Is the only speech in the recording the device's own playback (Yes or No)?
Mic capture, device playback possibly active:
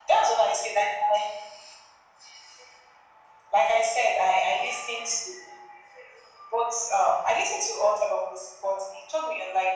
Yes